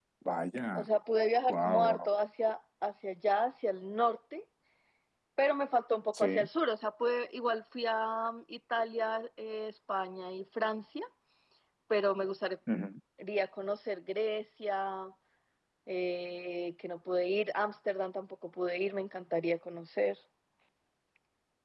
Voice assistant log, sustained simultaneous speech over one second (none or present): none